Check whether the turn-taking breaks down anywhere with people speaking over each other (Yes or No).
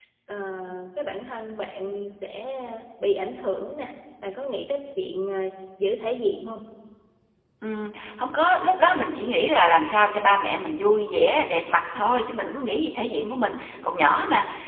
No